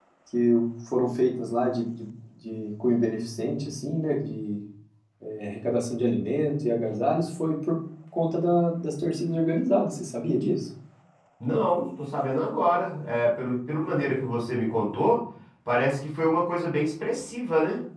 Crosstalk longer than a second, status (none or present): none